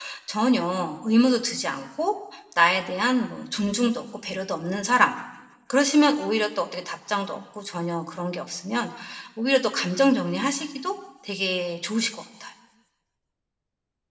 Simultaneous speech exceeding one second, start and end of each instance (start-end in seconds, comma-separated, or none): none